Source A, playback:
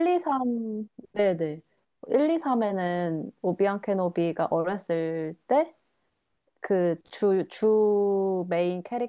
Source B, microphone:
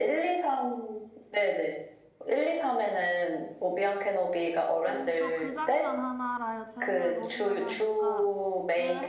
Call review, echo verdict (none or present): present